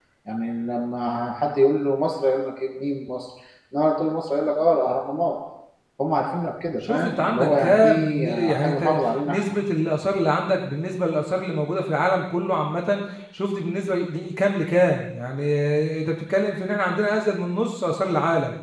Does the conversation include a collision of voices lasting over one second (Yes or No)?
Yes